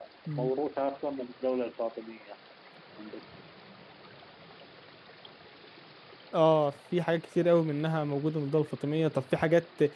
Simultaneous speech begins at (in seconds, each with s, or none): none